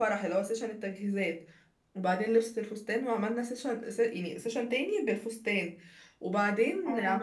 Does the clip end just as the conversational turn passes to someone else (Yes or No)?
No